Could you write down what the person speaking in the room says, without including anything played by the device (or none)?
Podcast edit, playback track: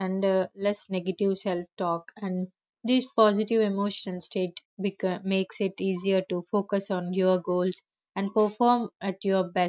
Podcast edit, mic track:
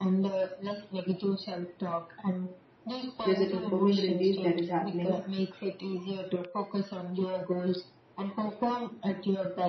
there's a dopamine release that is happening,